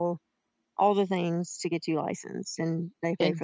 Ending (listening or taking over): taking over